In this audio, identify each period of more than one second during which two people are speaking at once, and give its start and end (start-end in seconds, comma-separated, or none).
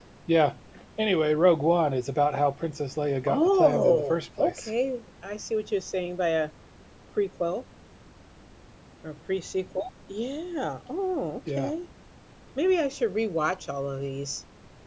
3.3-4.7